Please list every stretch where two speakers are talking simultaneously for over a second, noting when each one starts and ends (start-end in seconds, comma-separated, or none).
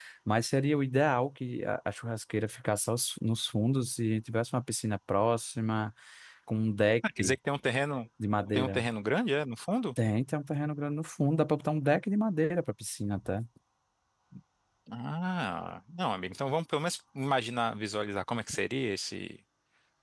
none